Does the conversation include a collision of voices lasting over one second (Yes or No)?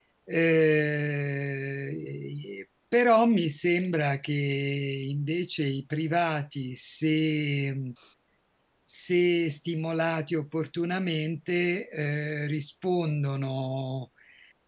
No